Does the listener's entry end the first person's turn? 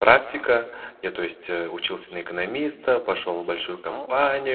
No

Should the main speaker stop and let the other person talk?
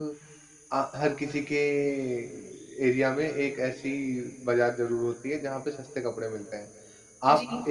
No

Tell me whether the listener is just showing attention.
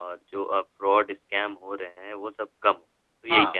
No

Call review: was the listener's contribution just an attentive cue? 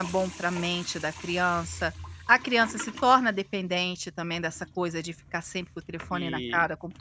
No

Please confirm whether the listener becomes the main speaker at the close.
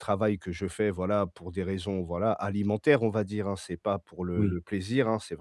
No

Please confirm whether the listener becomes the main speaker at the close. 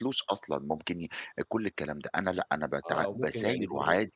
Yes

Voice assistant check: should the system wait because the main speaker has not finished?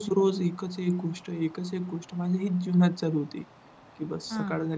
Yes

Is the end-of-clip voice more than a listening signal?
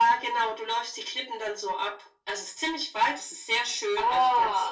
No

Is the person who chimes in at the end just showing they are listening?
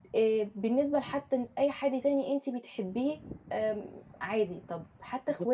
Yes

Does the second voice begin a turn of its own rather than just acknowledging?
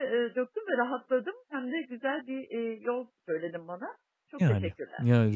Yes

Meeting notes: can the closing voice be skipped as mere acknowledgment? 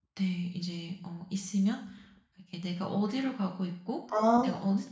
Yes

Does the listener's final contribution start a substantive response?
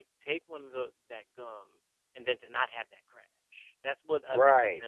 Yes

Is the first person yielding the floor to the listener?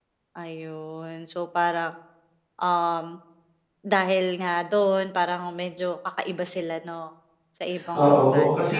Yes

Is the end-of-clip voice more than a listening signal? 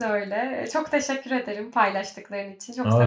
Yes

